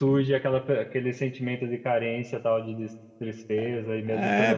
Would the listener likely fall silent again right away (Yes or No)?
No